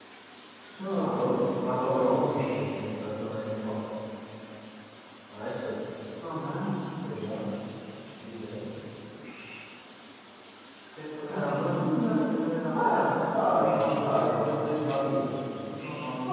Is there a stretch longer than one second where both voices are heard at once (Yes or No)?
Yes